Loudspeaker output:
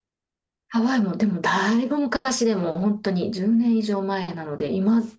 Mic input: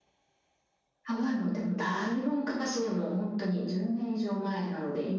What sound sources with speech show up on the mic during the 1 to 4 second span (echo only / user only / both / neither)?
echo only